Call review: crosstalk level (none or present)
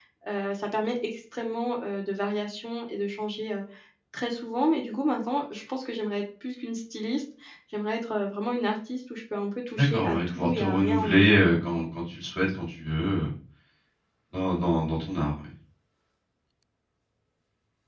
present